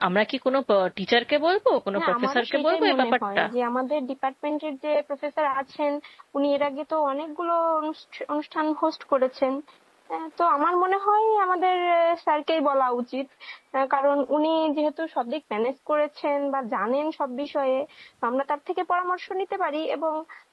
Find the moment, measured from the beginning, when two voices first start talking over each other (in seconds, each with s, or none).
1.9 s